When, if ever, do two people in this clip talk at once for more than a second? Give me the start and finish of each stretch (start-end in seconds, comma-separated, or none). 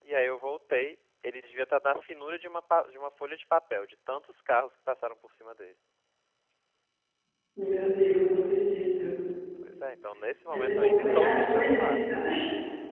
10.4-12.0